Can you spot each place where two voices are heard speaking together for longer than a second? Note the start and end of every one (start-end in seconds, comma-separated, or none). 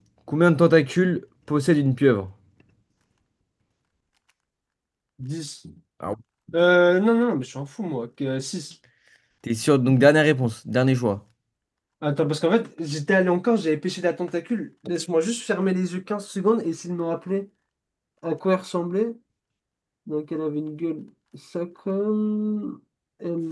none